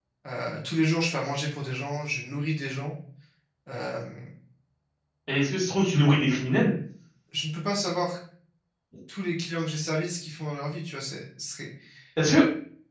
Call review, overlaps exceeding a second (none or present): none